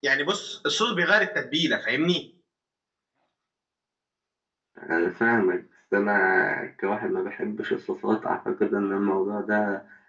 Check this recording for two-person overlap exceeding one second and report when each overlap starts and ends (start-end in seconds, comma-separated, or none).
none